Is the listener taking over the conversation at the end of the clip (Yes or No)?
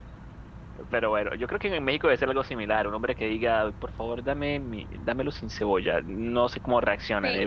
Yes